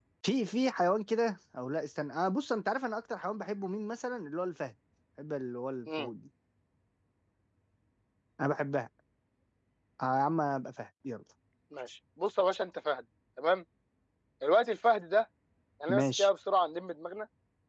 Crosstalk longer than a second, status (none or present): none